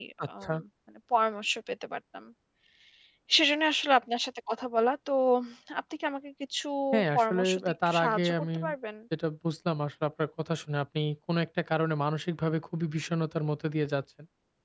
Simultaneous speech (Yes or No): Yes